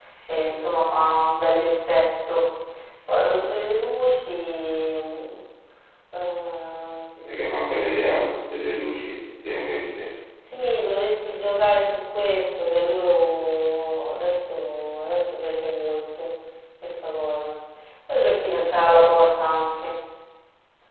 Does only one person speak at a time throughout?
Yes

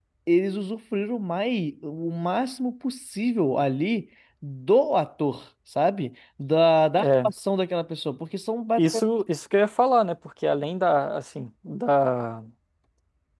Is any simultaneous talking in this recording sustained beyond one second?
No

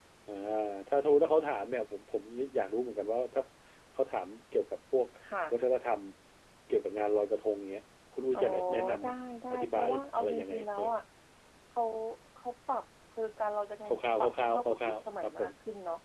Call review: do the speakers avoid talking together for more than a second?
No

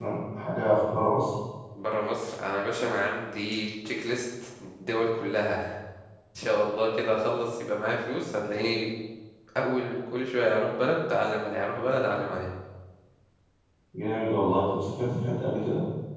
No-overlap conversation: Yes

